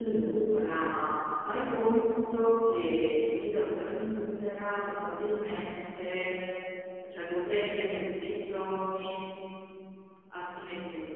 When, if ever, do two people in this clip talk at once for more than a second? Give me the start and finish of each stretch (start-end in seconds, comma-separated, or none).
none